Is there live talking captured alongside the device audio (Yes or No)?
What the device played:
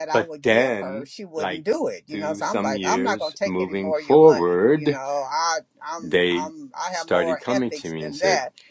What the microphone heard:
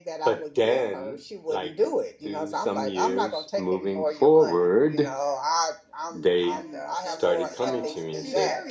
Yes